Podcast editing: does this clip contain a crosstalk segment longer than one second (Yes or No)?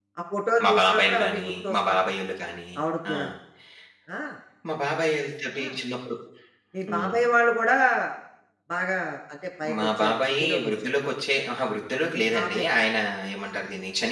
Yes